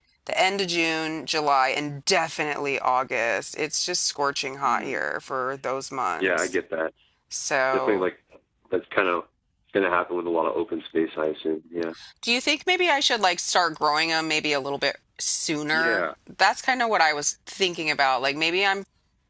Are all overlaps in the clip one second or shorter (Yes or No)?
Yes